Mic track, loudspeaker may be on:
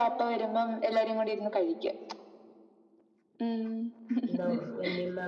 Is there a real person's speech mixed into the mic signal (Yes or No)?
Yes